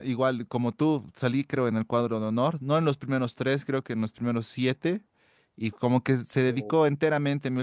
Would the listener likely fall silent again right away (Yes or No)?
Yes